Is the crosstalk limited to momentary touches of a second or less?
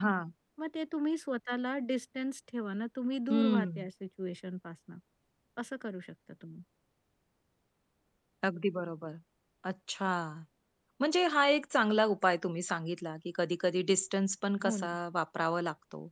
Yes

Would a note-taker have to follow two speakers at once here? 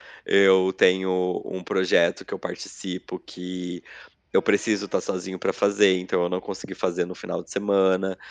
No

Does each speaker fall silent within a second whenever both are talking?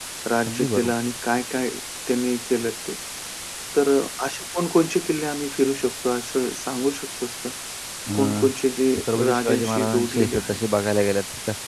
No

